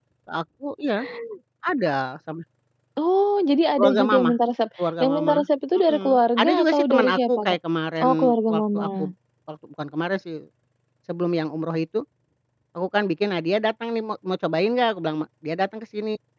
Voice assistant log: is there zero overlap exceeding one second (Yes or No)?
No